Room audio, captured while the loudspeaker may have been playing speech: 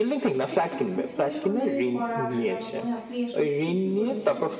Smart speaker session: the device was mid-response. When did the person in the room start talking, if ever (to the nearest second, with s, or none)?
1 s